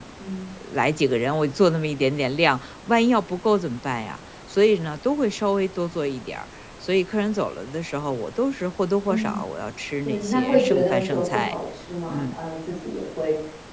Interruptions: present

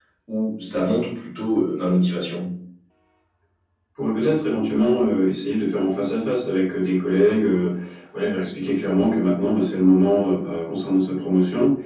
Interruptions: none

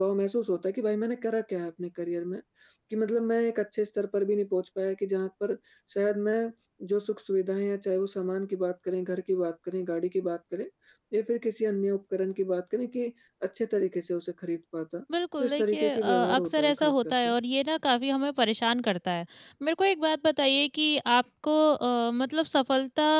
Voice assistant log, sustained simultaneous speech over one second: present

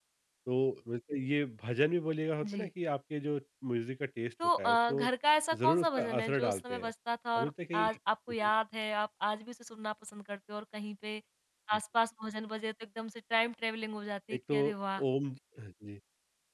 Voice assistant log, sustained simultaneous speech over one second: present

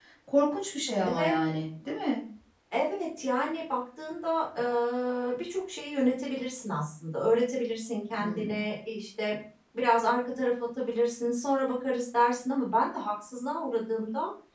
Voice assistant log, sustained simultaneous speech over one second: none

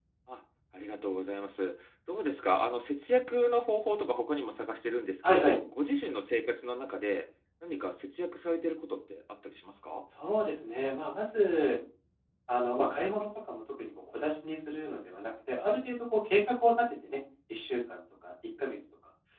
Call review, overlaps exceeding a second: none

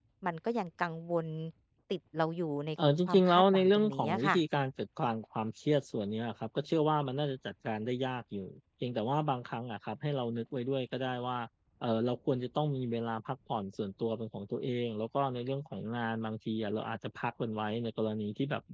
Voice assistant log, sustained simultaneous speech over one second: present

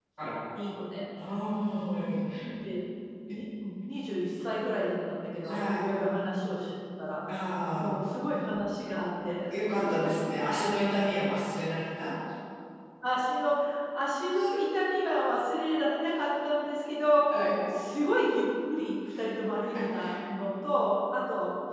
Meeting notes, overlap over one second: none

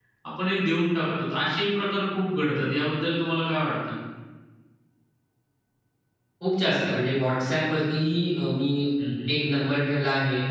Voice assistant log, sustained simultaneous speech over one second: none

